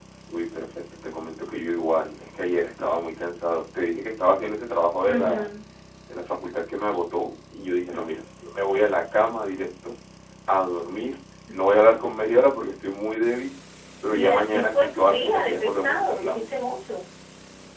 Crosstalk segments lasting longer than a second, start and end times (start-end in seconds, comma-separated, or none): 14.1-16.4